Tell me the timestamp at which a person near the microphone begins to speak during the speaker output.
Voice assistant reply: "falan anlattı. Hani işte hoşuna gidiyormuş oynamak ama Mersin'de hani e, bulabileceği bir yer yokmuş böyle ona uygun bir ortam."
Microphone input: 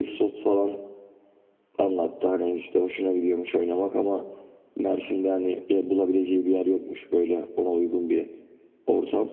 none

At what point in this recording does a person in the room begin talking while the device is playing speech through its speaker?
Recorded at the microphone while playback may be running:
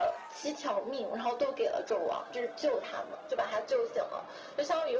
none

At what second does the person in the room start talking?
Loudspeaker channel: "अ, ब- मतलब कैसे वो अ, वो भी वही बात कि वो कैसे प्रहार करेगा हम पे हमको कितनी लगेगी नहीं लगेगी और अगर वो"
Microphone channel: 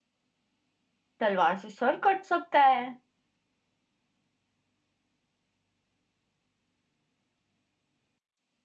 1 s

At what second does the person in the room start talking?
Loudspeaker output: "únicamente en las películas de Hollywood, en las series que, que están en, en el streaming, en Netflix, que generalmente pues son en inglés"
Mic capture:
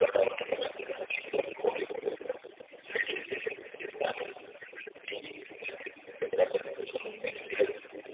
7 s

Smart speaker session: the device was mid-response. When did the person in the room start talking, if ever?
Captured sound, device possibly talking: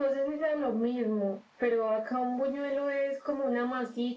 none

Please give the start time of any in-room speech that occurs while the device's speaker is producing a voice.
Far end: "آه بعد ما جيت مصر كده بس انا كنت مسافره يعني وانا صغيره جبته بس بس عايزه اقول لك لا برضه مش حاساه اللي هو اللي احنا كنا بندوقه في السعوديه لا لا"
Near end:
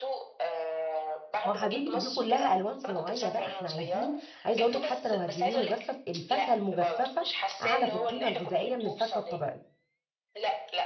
1 s

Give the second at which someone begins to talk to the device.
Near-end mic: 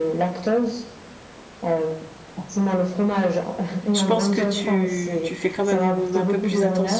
4 s

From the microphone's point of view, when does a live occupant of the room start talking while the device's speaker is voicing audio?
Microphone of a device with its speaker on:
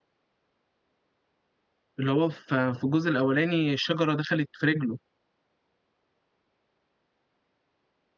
2 s

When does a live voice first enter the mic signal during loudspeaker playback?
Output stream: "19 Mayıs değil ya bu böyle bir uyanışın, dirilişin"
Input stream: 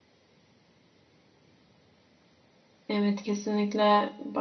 3 s

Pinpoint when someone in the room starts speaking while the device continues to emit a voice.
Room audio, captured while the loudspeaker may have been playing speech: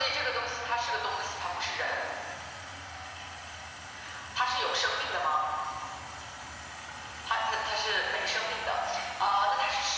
none

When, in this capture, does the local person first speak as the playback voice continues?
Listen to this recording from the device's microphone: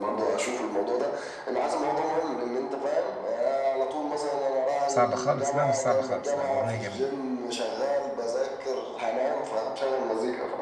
5 s

